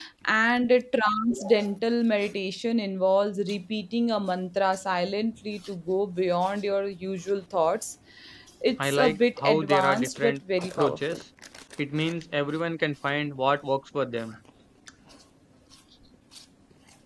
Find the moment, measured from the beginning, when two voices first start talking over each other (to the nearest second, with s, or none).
9 s